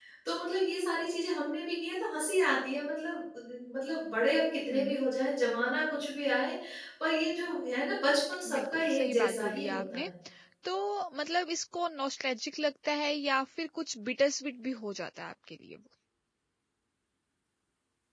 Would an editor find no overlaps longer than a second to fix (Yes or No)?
No